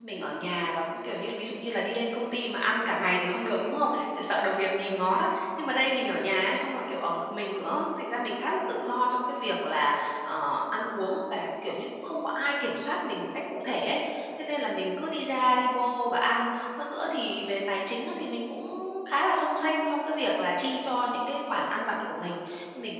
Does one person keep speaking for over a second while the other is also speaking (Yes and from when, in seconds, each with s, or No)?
No